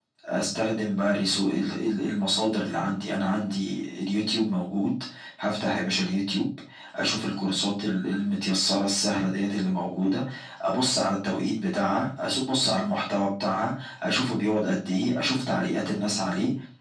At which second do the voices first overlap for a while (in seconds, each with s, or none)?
none